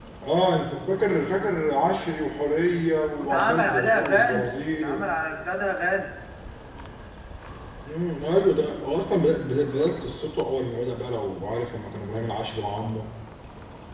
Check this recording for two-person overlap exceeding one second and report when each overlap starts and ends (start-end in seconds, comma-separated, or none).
3.2-5.0